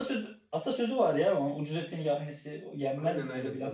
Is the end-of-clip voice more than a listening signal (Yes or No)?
Yes